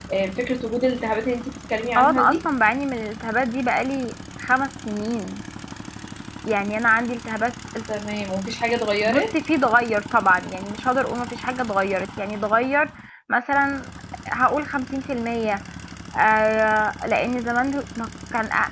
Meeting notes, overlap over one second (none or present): none